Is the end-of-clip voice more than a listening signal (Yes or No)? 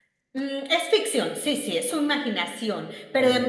No